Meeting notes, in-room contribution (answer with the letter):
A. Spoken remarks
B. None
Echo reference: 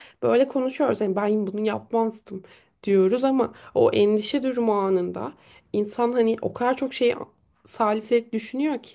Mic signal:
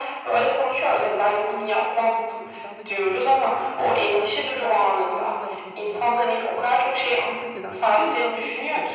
A